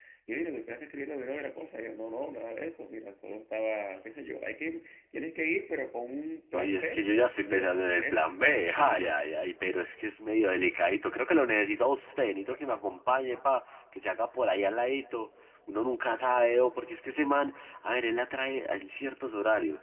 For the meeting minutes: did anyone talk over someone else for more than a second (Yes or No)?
Yes